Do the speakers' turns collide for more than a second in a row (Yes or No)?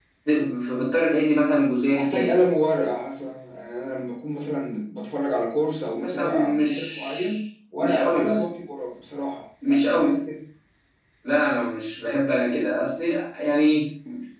Yes